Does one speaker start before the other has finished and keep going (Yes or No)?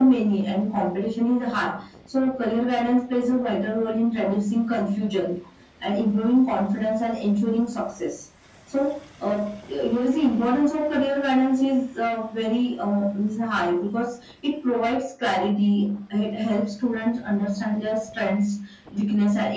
No